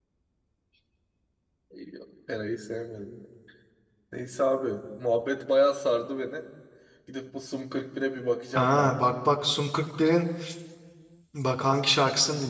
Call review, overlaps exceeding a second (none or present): none